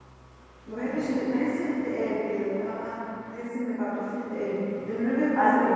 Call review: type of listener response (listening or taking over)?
taking over